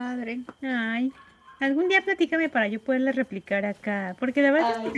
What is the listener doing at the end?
listening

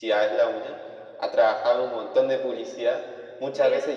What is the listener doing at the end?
listening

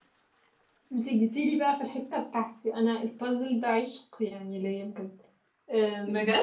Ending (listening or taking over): listening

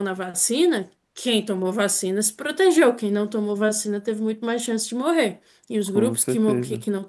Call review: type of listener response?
listening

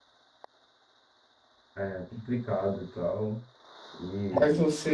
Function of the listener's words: taking over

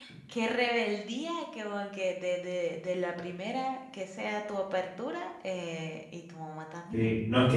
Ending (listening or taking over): taking over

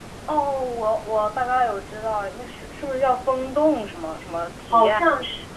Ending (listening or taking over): taking over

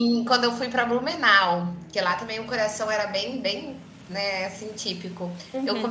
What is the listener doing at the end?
listening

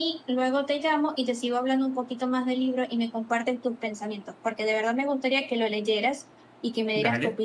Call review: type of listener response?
taking over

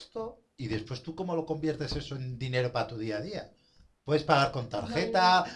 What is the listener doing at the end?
listening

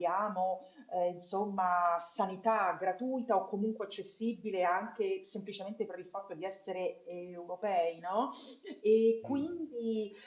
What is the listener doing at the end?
listening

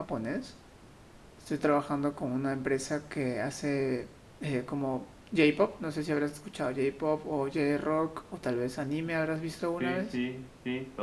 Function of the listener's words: taking over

